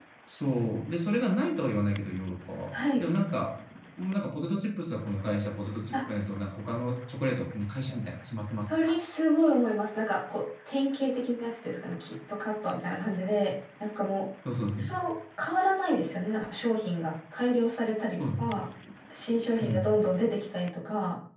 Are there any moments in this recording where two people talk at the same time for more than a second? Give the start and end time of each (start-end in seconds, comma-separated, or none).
none